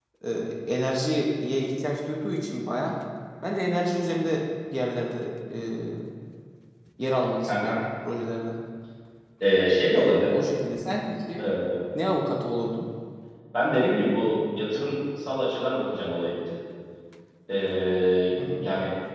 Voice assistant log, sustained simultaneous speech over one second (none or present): none